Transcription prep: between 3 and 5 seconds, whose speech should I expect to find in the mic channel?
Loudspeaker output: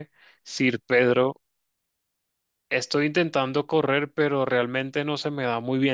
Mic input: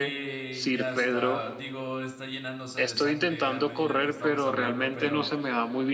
both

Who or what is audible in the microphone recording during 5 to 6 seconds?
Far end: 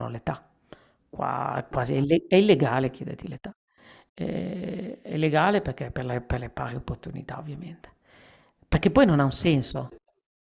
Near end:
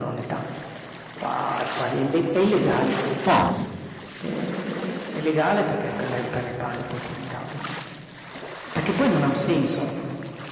echo only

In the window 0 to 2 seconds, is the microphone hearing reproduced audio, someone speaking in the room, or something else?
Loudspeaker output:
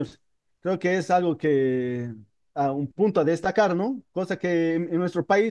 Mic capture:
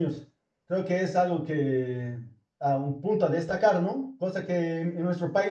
echo only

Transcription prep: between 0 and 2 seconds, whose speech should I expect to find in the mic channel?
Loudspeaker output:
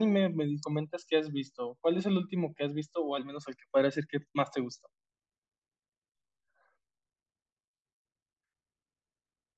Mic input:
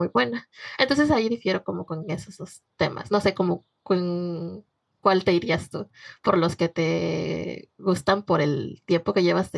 user only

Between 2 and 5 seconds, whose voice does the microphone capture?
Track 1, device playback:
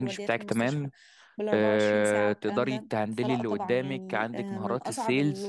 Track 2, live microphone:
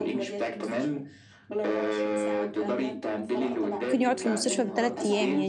both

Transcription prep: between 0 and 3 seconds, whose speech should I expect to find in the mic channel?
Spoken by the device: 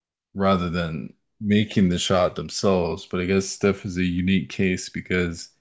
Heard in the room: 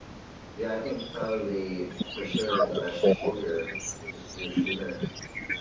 both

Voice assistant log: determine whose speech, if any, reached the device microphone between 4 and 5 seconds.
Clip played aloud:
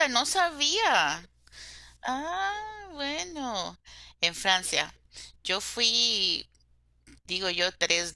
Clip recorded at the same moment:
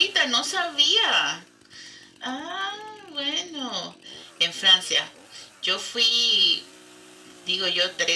echo only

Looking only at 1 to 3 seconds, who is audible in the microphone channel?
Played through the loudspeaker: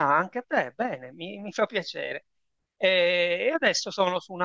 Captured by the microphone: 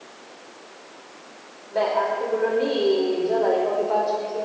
user only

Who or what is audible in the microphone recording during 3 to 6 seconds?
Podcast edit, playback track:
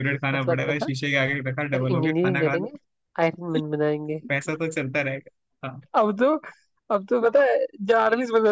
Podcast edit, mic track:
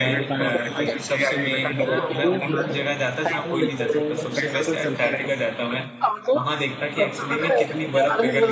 both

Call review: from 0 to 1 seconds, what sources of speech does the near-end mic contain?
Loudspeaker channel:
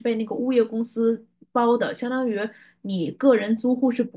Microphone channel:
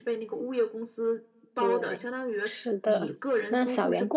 echo only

